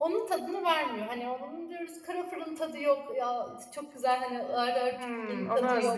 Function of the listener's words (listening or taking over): taking over